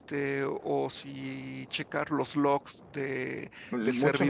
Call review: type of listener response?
taking over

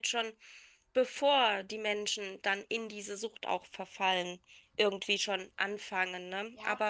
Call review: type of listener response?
taking over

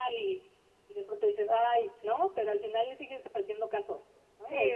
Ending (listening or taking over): taking over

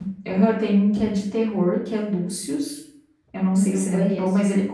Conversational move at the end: listening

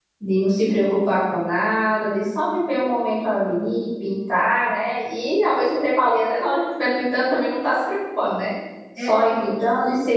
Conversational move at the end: listening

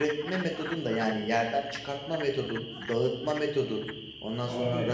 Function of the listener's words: listening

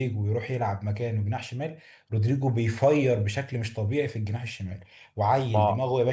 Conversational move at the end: listening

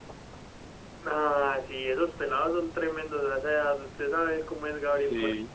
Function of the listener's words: taking over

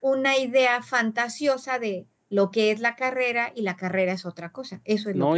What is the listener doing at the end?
taking over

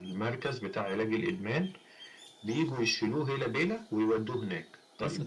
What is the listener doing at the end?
taking over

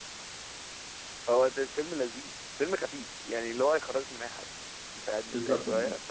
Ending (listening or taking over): taking over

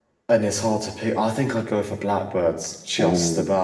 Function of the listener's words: taking over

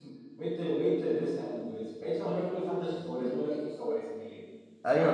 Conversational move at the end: taking over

